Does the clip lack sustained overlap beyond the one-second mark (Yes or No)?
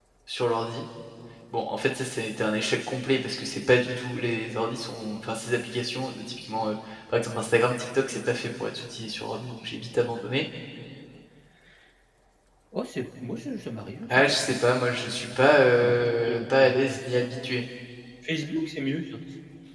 No